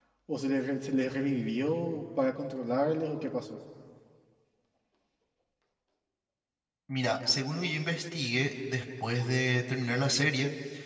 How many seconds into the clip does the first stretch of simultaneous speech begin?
none

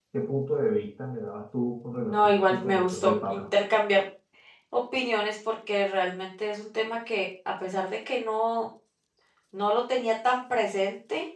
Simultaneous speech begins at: 2.1 s

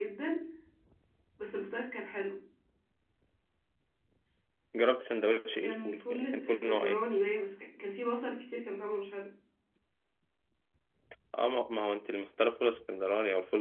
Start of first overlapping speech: 5.6 s

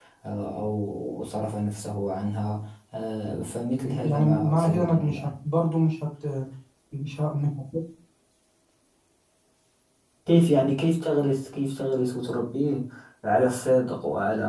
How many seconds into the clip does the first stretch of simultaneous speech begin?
3.8 s

